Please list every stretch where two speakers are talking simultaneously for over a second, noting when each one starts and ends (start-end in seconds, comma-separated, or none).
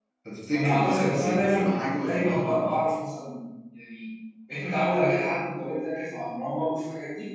0.5-2.8